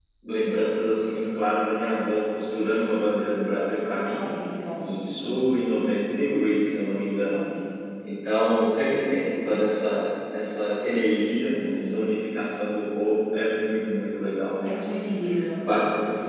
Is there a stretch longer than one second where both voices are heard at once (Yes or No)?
No